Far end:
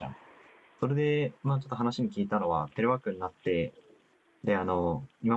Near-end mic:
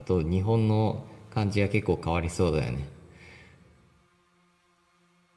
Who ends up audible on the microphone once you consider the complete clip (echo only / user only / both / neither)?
user only